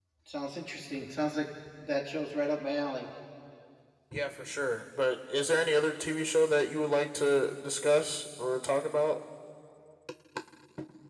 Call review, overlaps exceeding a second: none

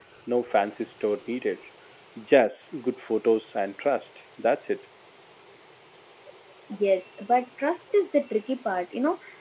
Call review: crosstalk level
none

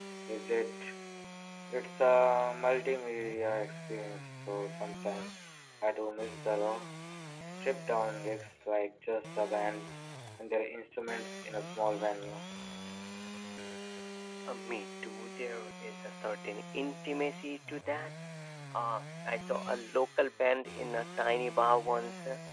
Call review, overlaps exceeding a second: none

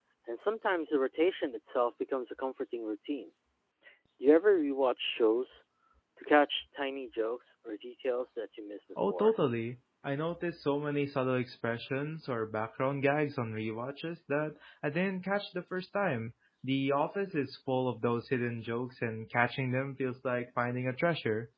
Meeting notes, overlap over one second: none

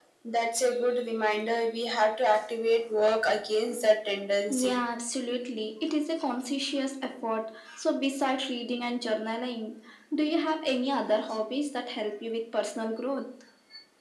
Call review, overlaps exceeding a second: none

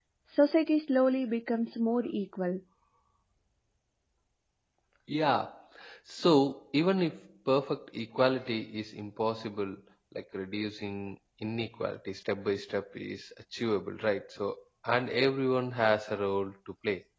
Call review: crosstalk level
none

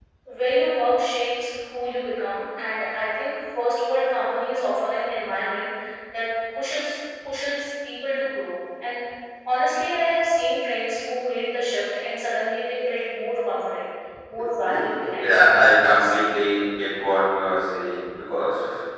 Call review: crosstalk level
present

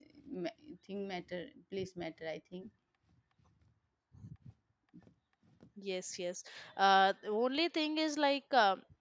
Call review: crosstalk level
none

